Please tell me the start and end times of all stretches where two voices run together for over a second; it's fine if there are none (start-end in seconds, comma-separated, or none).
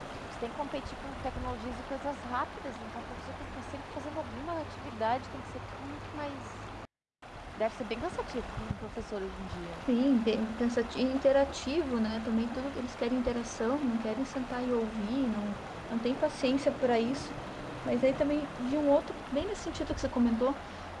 none